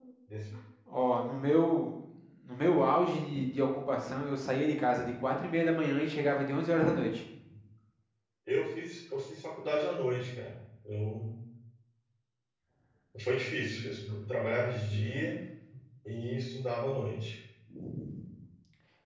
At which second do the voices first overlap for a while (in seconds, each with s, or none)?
none